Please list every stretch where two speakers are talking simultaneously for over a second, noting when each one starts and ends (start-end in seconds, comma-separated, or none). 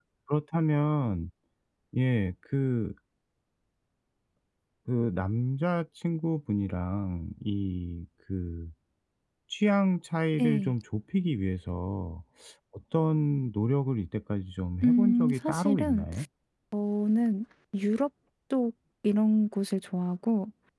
14.8-16.1